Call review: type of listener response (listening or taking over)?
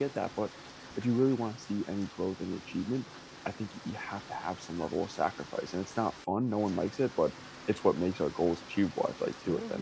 taking over